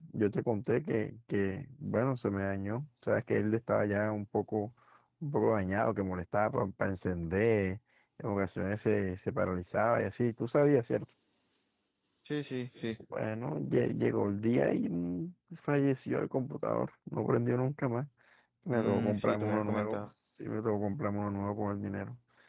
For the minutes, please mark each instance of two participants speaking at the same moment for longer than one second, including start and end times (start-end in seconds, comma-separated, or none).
18.7-20.1